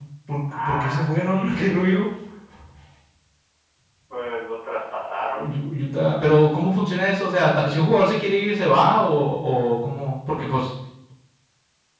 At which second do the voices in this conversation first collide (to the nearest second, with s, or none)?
1 s